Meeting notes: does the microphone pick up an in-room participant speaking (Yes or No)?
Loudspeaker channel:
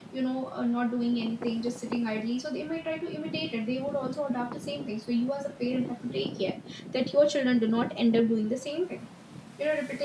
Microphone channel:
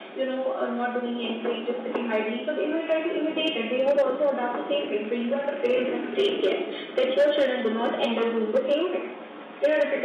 No